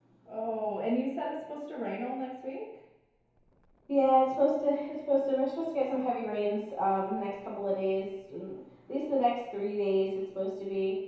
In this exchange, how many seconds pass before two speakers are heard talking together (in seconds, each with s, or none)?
none